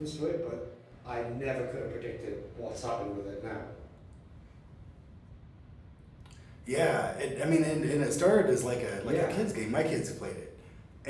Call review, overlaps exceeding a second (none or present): none